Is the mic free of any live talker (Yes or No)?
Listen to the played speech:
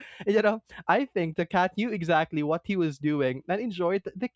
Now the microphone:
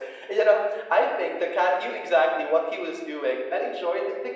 Yes